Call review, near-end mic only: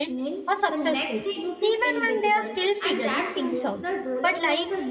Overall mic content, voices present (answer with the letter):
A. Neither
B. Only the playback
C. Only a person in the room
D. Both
D